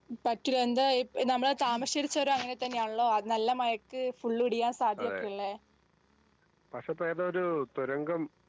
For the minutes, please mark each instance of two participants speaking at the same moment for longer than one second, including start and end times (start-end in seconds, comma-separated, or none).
none